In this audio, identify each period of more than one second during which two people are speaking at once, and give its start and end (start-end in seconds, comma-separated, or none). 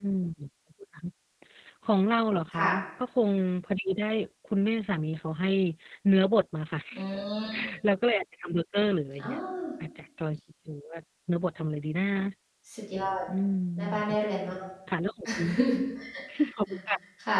none